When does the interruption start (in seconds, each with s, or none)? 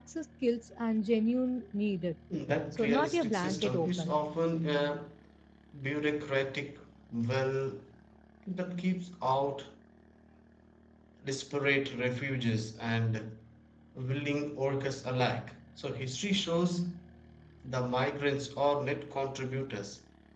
2.7 s